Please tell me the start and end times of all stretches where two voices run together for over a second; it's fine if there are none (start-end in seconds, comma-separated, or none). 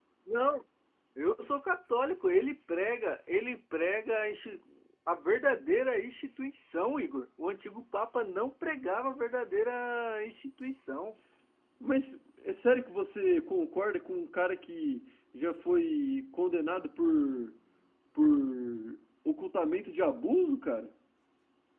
none